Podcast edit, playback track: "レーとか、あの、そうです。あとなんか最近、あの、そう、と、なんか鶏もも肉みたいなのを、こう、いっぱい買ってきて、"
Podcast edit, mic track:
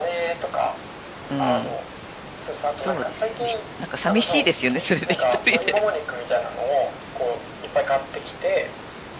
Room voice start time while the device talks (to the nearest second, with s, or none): 1 s